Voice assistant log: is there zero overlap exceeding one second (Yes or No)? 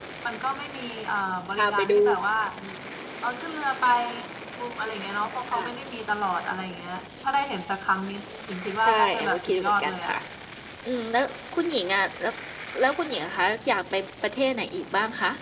No